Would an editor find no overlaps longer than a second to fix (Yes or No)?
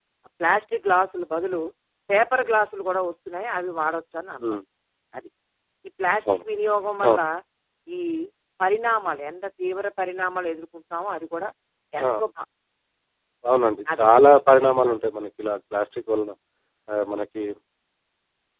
Yes